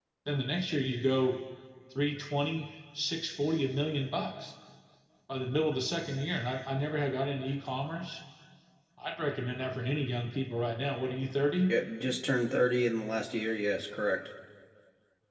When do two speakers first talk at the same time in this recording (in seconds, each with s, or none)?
none